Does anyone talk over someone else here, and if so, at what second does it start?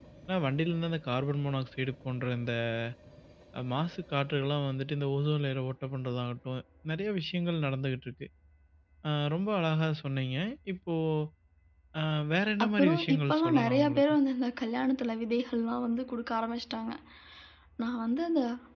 12.6 s

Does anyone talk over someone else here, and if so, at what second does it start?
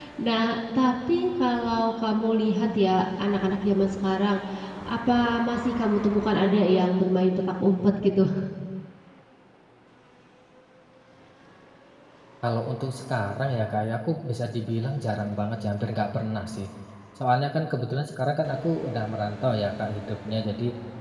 none

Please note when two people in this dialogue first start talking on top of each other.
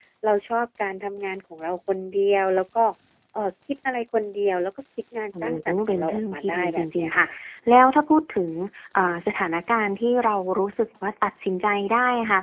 5.3 s

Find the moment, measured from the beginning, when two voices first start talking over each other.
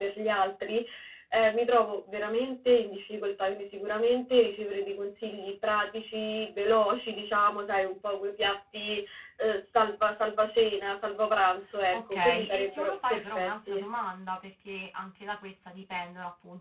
11.9 s

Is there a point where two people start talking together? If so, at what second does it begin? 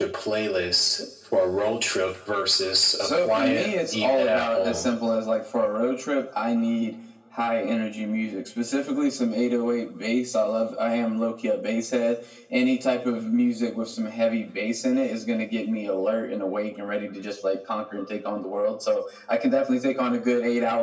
3.0 s

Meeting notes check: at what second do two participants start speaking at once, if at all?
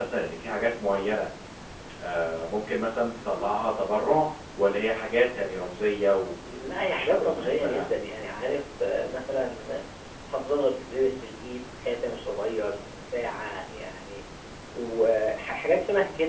6.4 s

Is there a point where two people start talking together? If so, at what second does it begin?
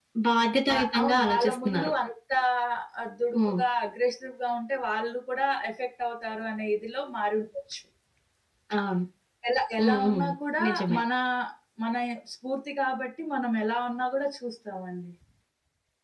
0.7 s

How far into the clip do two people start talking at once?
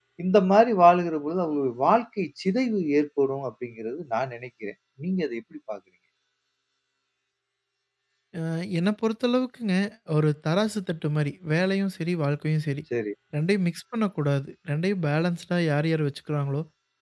none

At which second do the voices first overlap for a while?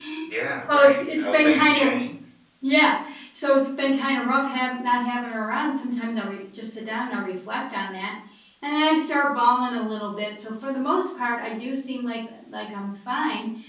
0.6 s

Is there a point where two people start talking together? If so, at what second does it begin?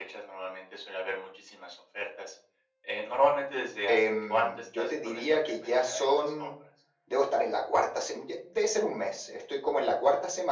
3.9 s

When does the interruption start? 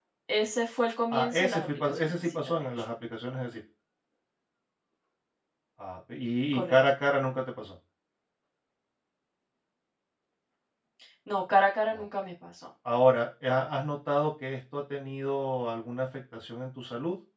1.1 s

